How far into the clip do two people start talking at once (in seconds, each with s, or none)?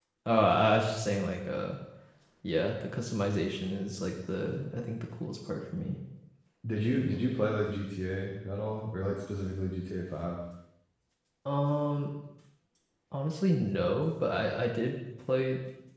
none